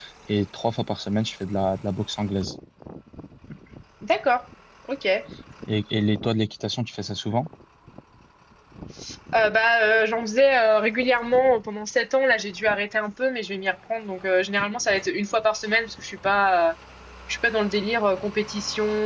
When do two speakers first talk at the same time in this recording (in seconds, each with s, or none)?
none